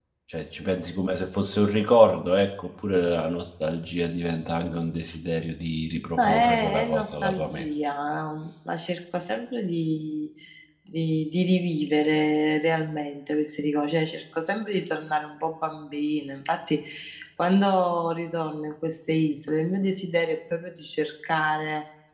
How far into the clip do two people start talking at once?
6.2 s

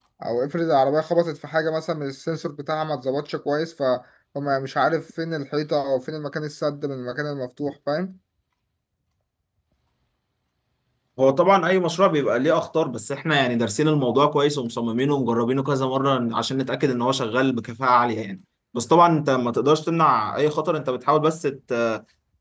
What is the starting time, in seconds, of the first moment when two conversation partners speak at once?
none

